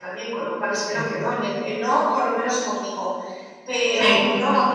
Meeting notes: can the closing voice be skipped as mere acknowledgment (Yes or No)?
Yes